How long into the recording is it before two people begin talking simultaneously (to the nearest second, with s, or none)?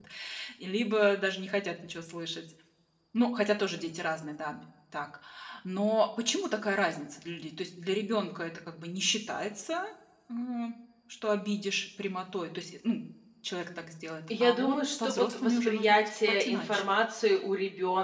14 s